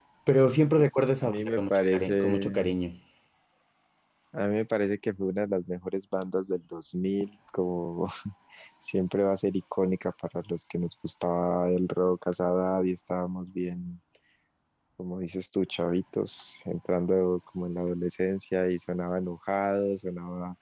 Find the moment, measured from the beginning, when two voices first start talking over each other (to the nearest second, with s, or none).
1 s